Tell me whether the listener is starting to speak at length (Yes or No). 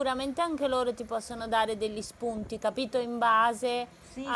Yes